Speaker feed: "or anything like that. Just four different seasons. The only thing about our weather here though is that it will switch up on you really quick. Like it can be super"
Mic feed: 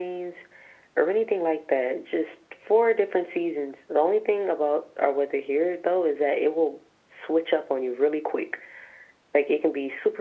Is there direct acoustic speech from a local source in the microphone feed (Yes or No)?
No